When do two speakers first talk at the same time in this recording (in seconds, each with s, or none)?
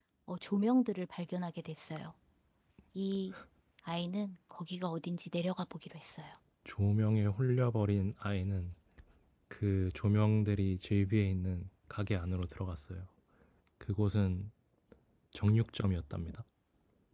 none